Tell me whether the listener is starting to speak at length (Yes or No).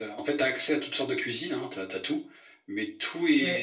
Yes